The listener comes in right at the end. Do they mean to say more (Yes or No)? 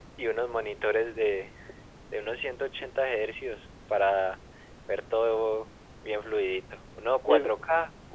No